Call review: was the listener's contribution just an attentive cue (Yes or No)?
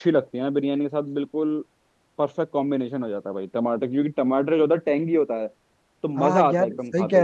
No